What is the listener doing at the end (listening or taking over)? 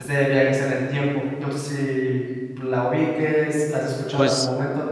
taking over